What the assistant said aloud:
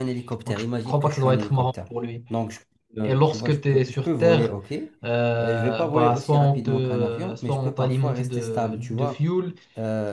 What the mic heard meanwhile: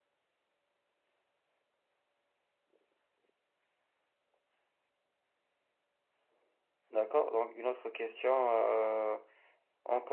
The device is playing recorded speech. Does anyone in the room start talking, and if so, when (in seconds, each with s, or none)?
6.9 s